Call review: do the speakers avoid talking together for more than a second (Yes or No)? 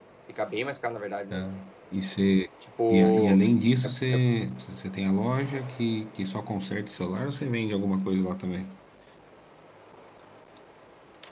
Yes